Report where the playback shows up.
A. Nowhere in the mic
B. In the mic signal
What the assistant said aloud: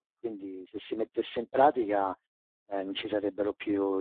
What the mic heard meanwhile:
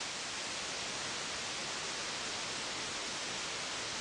A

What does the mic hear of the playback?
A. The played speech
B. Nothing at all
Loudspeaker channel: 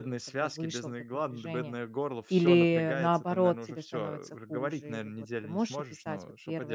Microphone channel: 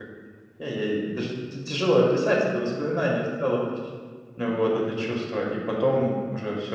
B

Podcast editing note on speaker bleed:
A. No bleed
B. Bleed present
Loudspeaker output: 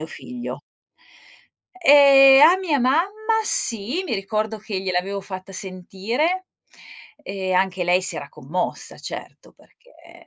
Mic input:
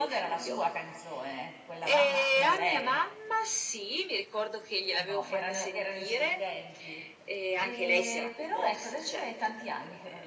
B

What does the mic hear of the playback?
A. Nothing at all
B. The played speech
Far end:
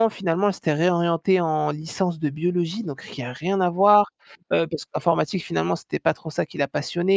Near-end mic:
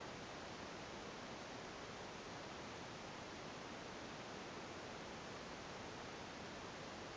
A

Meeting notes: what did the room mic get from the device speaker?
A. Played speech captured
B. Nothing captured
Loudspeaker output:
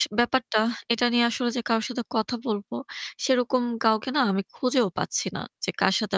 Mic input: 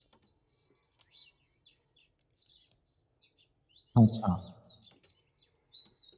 B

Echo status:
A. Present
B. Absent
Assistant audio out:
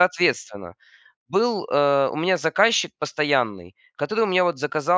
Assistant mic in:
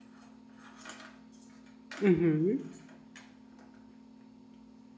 B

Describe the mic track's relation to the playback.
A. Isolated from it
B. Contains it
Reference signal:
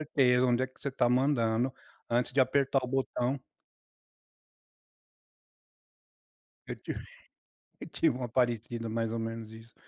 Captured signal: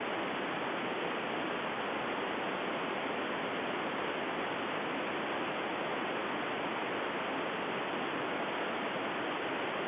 A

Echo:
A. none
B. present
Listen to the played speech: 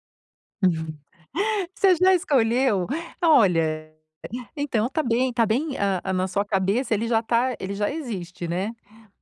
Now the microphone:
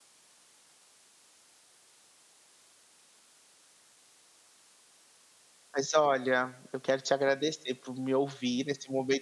A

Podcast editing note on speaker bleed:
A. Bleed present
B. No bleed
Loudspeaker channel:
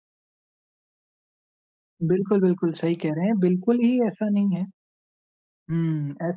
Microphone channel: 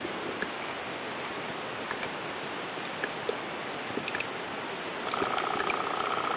B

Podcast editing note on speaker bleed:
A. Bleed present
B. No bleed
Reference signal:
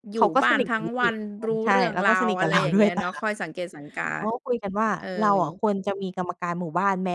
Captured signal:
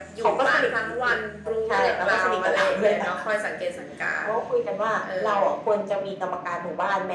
A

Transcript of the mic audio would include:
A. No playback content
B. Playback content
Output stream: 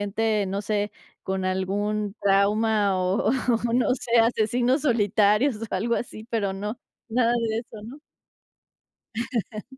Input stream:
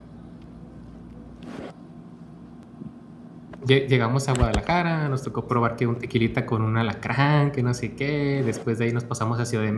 A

